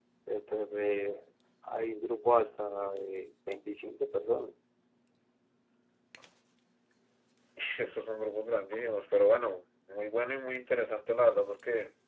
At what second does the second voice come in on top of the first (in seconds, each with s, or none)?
none